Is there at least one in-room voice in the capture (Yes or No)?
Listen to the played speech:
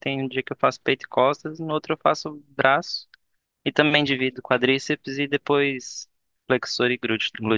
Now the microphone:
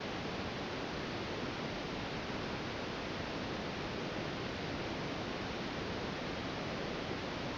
No